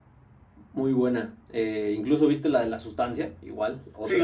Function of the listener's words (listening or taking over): taking over